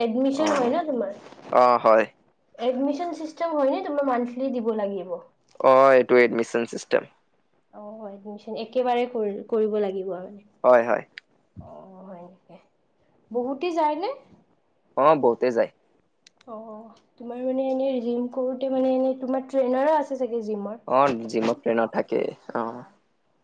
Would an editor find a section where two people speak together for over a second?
No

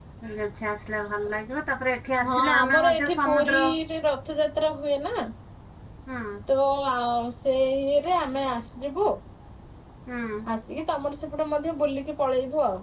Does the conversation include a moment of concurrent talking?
Yes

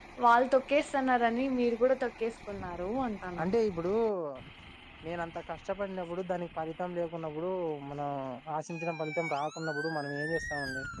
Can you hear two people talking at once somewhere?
No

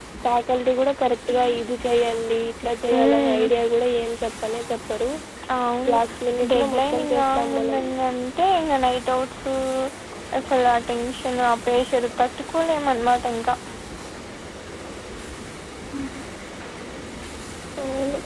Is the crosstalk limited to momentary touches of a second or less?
No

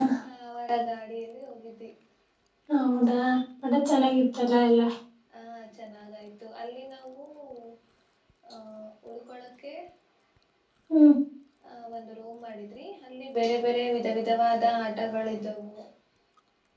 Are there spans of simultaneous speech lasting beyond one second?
No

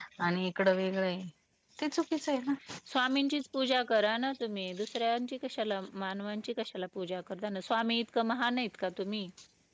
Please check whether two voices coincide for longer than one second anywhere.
No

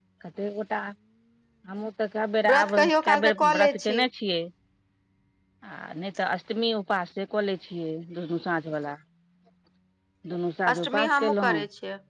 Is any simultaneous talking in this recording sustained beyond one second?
Yes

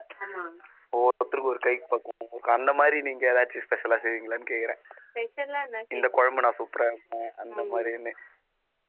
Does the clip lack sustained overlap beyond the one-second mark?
Yes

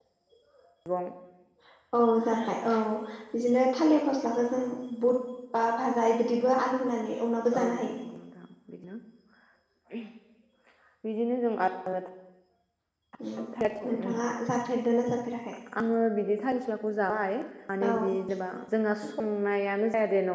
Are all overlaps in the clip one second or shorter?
Yes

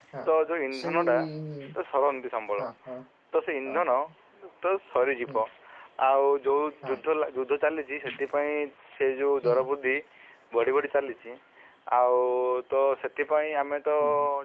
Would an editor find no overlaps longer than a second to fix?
Yes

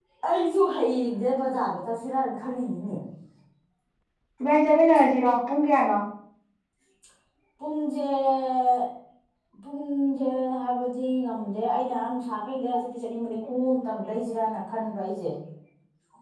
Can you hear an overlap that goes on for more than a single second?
No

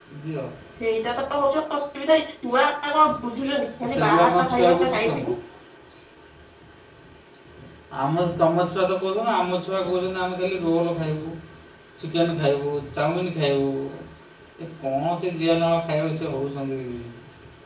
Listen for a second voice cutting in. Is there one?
Yes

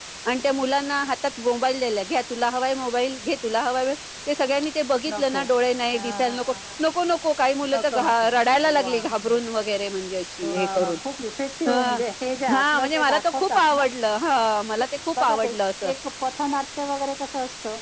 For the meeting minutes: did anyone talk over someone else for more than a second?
Yes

